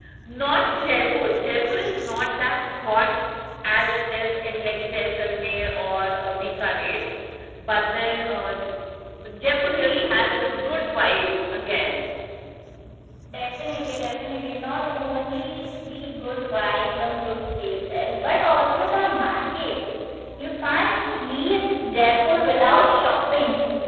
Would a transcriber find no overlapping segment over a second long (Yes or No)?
Yes